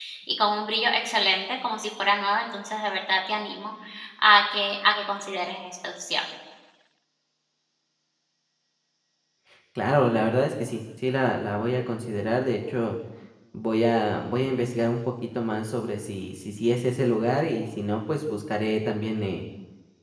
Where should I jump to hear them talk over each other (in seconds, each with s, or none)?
none